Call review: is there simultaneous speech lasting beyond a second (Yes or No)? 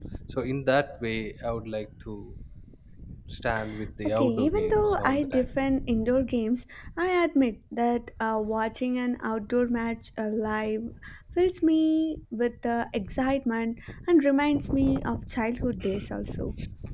Yes